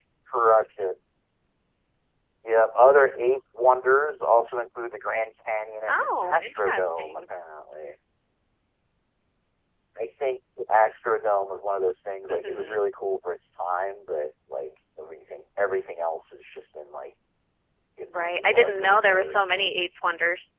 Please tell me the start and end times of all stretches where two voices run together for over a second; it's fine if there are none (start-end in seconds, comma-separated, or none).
5.9-7.2, 18.2-19.8